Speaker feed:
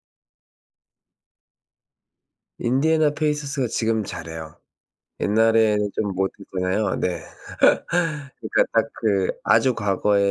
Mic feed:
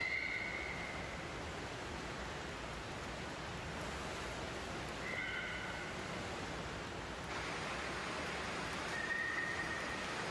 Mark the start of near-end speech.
none

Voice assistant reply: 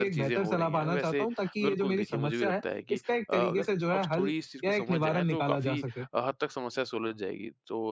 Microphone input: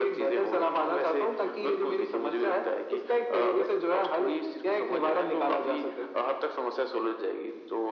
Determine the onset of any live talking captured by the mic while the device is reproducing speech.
none

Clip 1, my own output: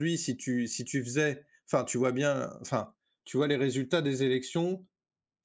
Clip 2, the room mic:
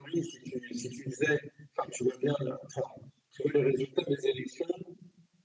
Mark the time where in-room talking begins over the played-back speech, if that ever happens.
none

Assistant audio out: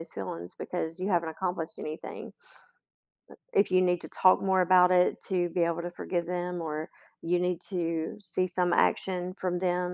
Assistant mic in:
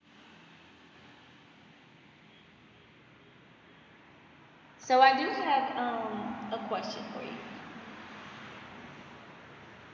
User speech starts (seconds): 4.8 s

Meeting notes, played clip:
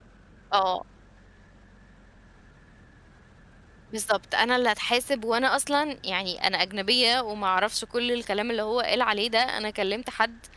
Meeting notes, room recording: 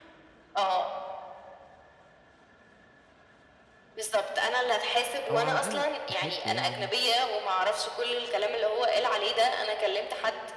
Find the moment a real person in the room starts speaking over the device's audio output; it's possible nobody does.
5.3 s

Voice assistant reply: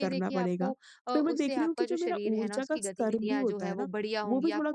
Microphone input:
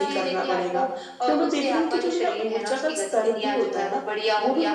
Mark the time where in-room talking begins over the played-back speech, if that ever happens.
none

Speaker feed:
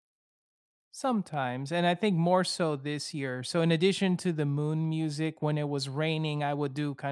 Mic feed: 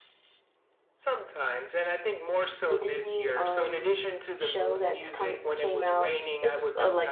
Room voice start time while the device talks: 2.7 s

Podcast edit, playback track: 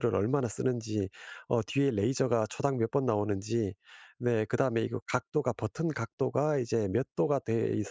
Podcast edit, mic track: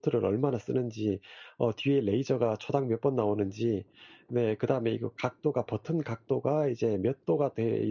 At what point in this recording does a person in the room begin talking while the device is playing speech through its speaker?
none

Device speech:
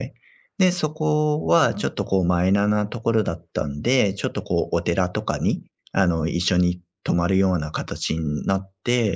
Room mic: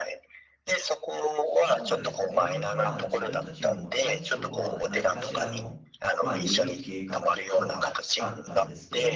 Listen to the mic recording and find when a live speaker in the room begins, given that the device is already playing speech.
1.4 s

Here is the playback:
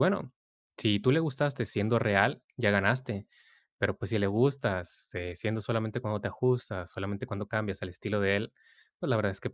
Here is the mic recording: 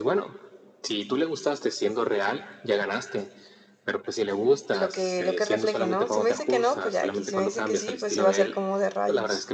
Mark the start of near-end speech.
4.7 s

